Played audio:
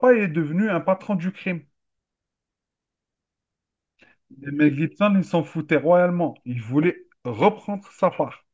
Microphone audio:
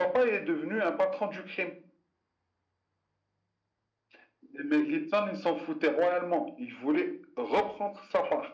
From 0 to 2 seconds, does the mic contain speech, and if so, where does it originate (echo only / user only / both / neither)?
echo only